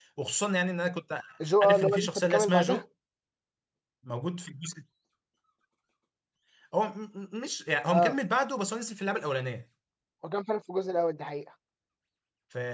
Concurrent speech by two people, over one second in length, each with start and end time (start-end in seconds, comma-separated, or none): 1.6-2.8